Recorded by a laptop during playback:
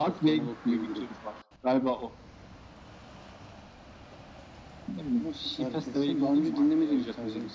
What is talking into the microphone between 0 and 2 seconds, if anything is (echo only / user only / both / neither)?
echo only